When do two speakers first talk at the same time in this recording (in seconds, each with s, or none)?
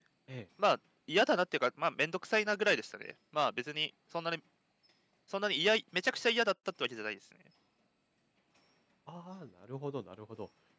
none